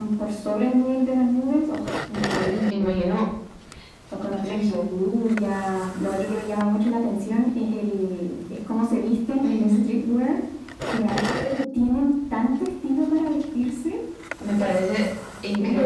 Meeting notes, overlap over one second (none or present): none